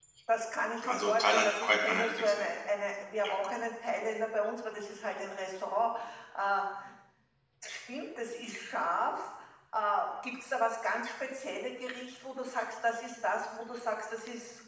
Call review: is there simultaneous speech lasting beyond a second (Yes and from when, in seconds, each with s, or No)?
Yes, from 0.9 s